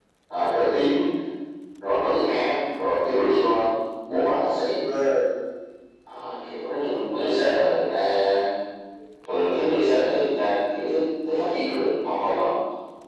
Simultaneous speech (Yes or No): Yes